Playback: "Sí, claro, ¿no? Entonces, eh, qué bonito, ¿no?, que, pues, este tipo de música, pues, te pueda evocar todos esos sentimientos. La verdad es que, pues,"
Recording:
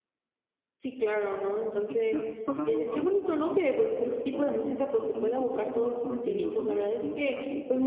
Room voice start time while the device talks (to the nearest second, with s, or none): 2 s